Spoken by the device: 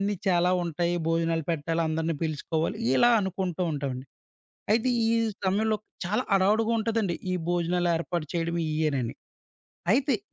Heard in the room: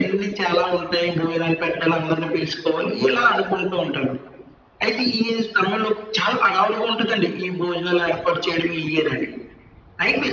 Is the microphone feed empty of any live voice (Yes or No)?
Yes